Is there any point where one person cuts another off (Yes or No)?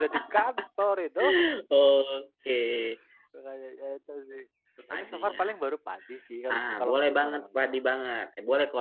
Yes